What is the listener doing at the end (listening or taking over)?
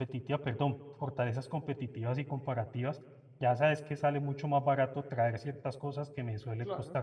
listening